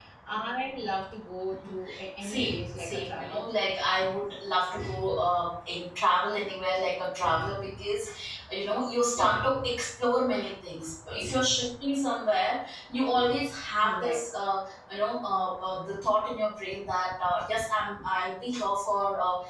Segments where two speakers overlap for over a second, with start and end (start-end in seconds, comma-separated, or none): 2.2-3.4